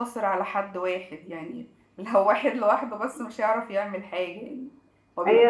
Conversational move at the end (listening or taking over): taking over